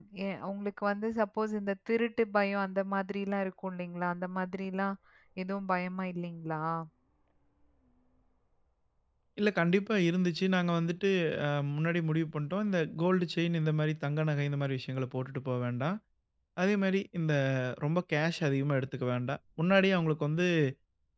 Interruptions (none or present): none